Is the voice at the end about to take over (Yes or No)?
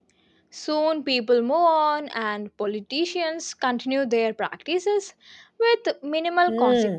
Yes